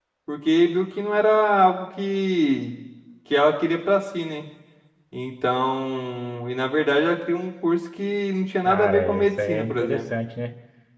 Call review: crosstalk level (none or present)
present